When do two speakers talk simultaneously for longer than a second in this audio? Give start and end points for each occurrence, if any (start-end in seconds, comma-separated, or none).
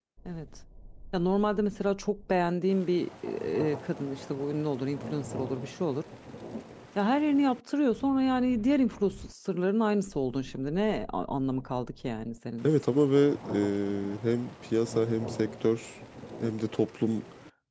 none